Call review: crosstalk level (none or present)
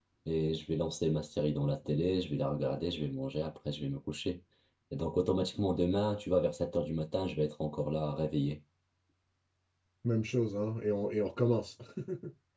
none